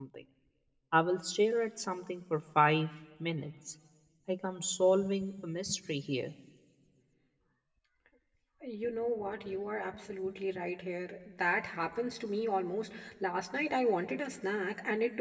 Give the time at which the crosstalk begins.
none

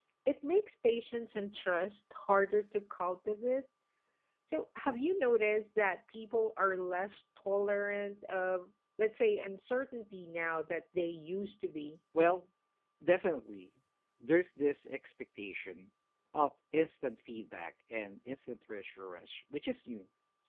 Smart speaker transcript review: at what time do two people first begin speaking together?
none

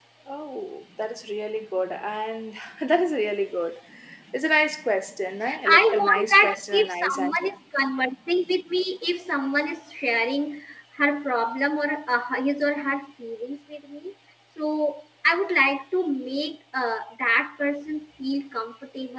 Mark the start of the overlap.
5.4 s

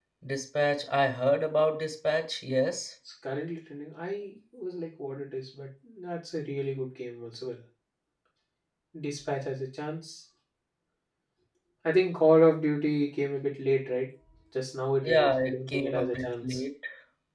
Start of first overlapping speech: 15.0 s

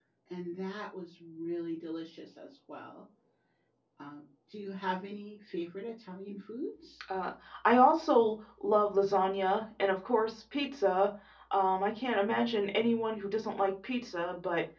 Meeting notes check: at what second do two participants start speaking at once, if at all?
none

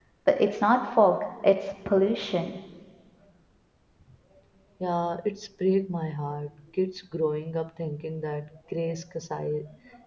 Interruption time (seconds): none

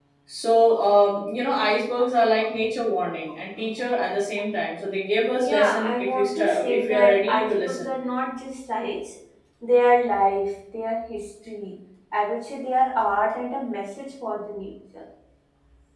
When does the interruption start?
5.4 s

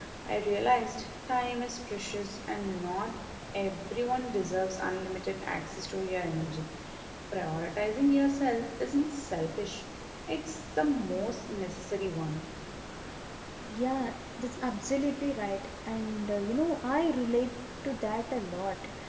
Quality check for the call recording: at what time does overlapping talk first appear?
none

